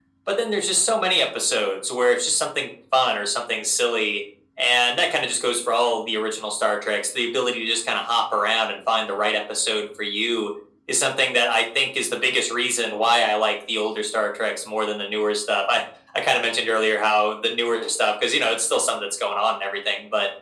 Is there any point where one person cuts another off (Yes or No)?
No